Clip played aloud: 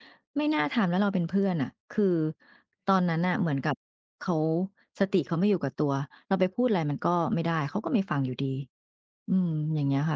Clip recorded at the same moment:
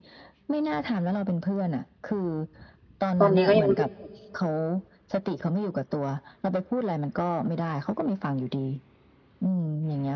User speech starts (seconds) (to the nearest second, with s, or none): 3 s